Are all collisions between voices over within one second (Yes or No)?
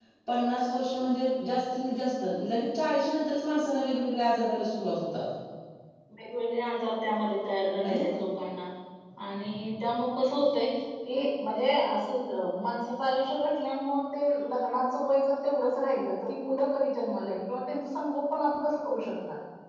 Yes